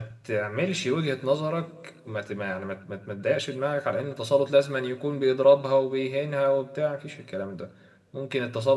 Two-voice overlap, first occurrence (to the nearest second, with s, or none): none